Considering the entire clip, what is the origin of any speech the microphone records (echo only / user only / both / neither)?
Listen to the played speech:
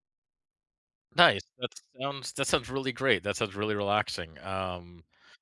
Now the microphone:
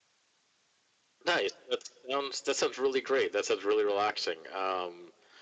echo only